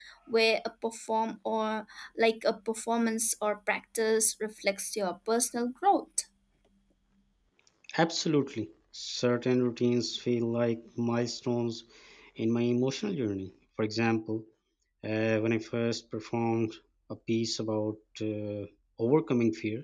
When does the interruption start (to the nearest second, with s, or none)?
none